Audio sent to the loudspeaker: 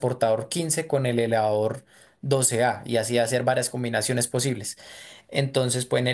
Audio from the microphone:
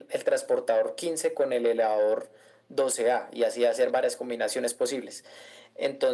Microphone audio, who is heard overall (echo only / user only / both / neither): echo only